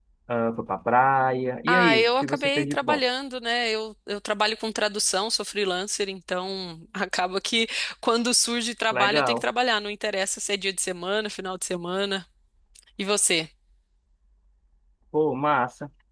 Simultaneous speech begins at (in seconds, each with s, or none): 1.7 s